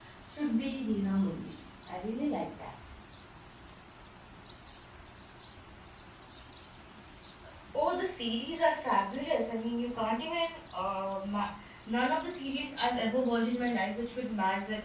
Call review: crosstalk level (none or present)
none